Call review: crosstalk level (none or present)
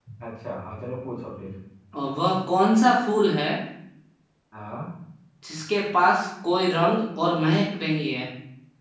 none